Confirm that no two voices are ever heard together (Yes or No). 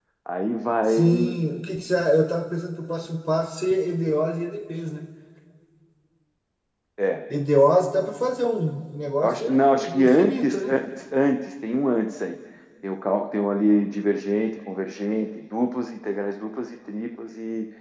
No